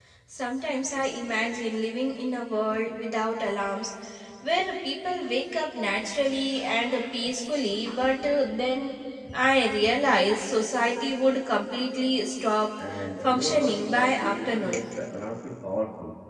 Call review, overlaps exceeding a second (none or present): present